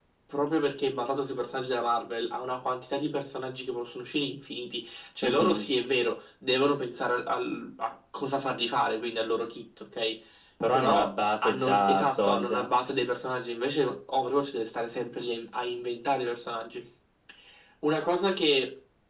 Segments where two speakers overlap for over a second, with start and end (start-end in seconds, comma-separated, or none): 10.7-12.8